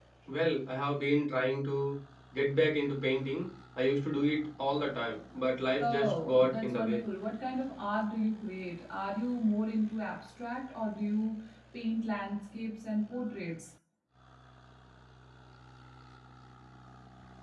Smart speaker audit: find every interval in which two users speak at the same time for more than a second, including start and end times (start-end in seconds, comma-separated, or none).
5.8-7.0